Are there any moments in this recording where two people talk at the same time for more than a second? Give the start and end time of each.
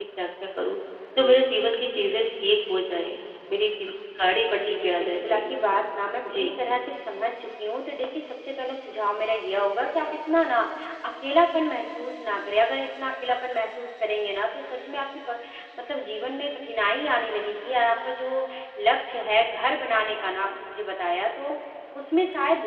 4.5-5.8

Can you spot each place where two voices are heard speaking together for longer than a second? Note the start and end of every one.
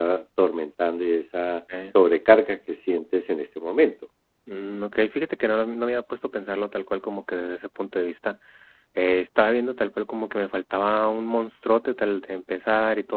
none

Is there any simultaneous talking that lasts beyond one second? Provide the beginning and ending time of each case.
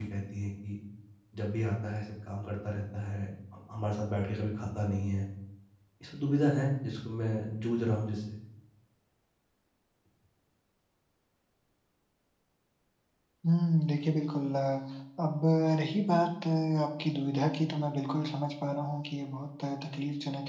none

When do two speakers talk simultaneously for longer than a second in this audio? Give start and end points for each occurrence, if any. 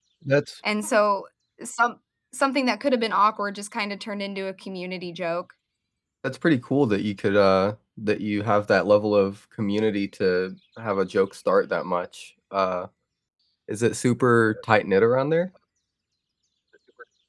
none

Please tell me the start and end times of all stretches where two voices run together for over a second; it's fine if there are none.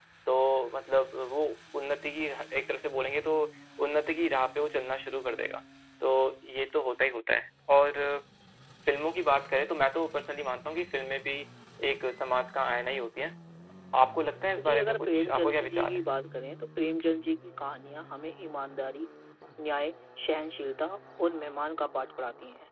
14.6-16.0

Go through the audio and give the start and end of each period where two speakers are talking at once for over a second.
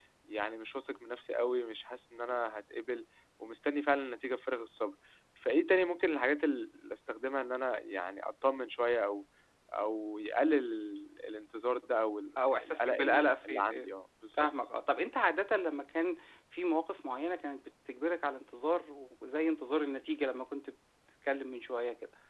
12.6-13.9

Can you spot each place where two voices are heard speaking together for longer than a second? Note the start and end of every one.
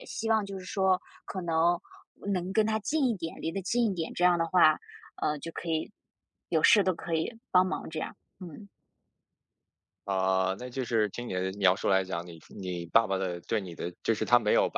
none

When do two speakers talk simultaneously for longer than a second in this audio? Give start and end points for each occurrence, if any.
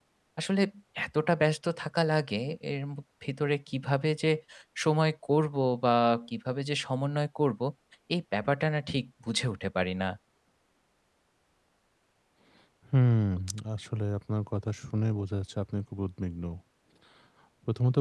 none

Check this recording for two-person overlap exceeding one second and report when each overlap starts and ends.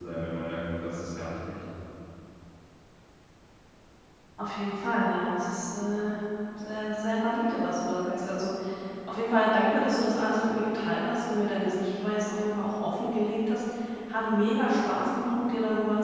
none

